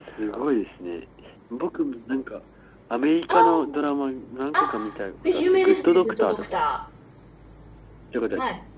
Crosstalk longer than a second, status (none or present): present